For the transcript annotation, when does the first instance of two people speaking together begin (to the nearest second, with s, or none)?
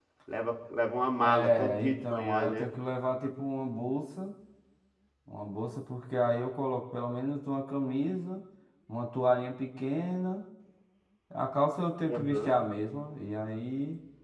1 s